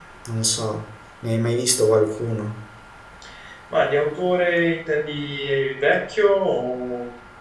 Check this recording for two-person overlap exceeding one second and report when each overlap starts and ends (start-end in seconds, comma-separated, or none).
none